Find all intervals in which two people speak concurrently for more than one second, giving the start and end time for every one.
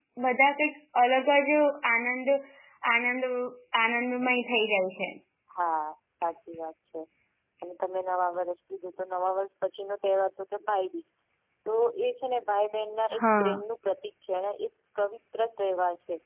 none

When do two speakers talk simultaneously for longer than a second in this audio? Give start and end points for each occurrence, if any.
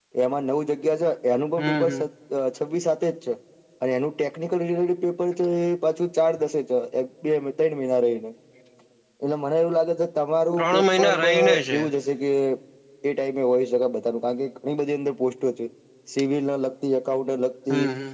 10.6-11.8

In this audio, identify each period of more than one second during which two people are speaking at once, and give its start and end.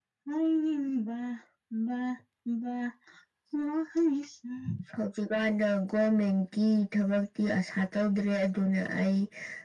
none

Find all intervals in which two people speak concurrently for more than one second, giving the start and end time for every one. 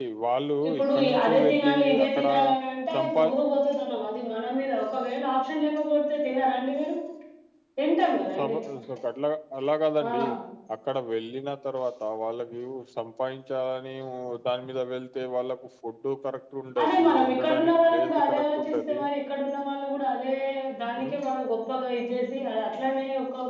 0.7-2.2, 16.8-19.0

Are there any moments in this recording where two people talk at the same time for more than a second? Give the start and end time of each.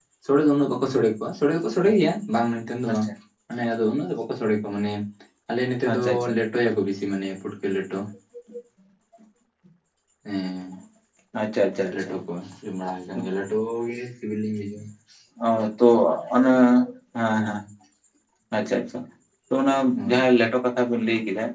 none

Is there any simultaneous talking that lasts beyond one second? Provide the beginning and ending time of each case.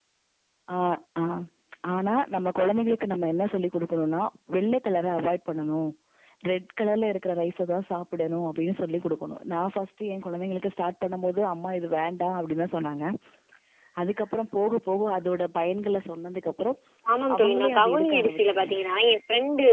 17.4-18.8

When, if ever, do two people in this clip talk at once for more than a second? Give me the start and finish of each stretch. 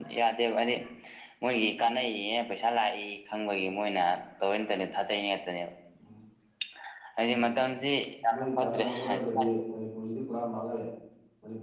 8.3-9.6

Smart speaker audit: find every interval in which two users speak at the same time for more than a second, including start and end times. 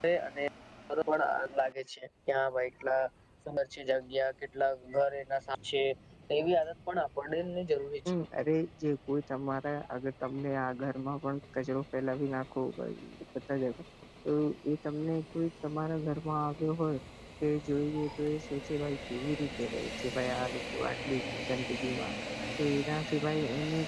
none

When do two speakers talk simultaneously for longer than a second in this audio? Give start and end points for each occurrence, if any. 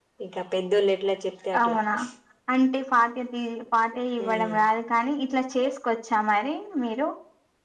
none

